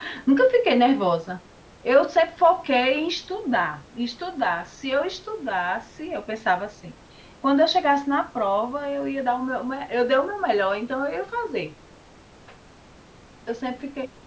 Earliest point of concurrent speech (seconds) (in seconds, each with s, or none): none